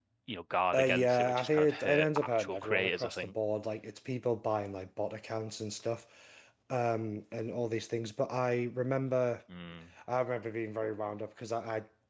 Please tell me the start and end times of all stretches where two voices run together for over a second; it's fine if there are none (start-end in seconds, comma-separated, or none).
0.7-3.3